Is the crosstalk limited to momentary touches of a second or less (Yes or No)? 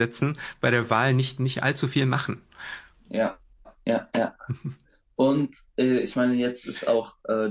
Yes